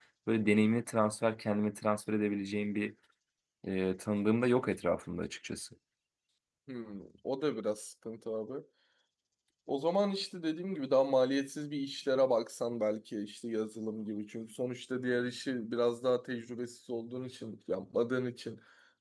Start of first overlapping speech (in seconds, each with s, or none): none